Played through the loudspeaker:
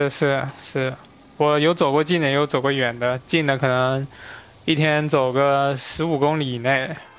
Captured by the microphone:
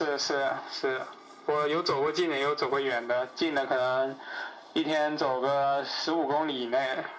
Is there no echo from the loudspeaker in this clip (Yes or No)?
No